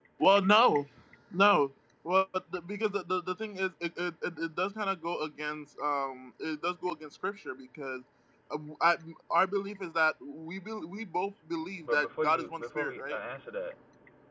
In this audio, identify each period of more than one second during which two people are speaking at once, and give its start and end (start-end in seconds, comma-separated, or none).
11.8-13.2